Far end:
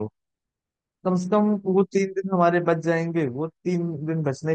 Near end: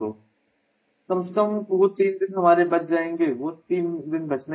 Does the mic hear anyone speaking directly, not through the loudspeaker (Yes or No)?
No